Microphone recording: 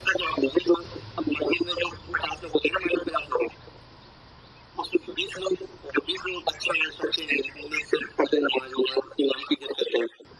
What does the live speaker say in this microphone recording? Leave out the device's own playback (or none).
none